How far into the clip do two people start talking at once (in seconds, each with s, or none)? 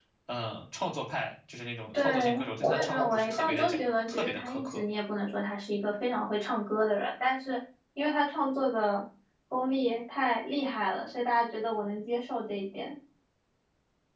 1.9 s